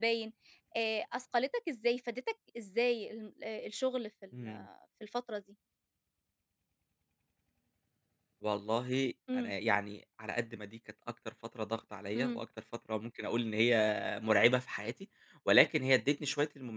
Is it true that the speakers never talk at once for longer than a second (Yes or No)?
Yes